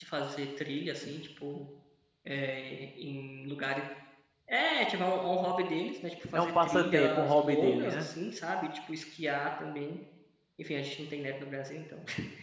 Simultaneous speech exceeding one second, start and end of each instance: 6.4-8.1

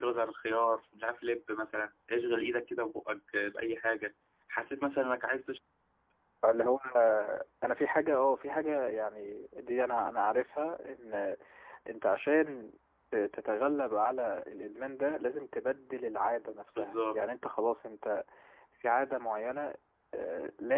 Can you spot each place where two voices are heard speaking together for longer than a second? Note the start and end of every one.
none

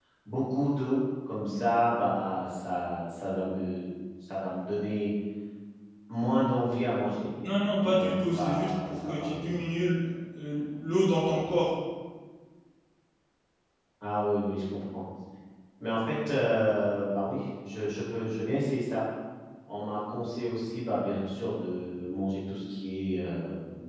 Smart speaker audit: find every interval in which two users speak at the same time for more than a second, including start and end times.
7.8-9.5

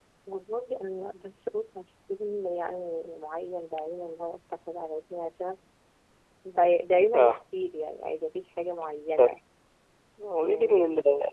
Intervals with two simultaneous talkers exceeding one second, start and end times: none

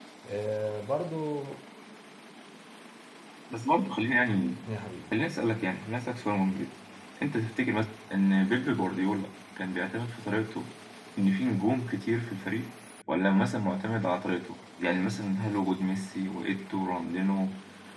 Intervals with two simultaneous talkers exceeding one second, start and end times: none

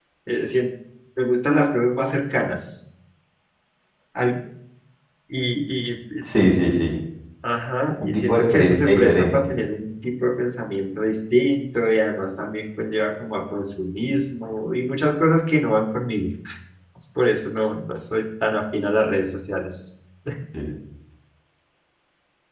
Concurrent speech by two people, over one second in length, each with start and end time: 8.0-9.5

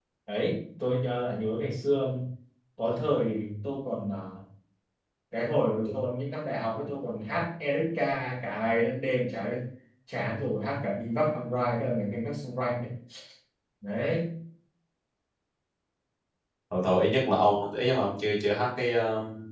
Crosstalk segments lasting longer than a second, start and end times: none

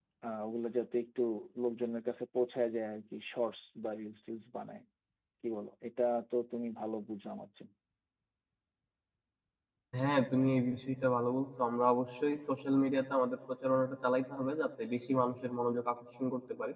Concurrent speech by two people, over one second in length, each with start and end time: none

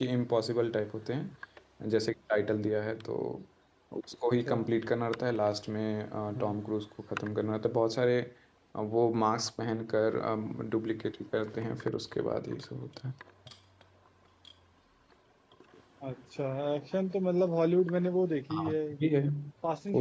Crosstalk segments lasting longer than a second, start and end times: none

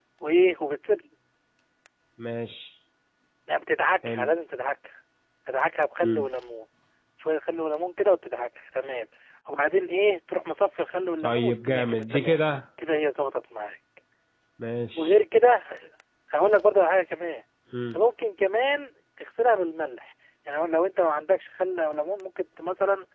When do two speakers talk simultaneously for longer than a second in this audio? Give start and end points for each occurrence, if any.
11.2-12.4

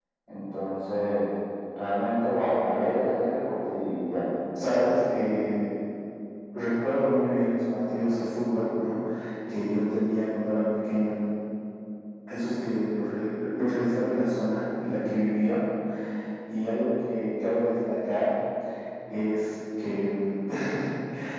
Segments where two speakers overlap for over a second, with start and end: none

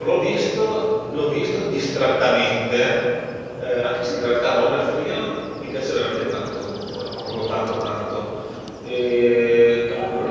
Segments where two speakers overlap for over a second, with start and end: none

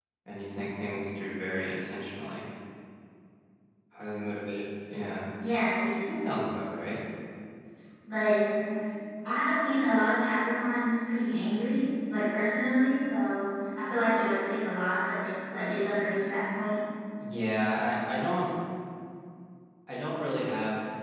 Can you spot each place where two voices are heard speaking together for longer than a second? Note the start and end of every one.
none

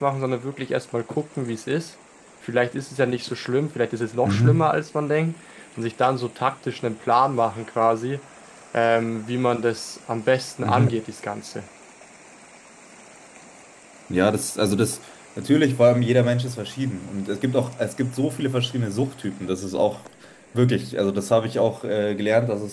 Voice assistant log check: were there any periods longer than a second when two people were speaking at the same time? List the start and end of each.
none

